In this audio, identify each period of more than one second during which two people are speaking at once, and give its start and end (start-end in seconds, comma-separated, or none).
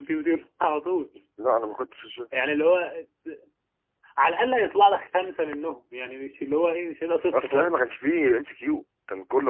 none